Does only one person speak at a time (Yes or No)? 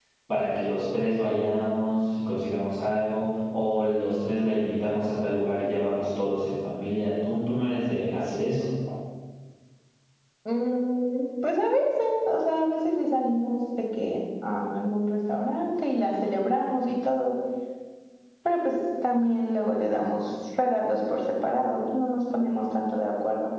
Yes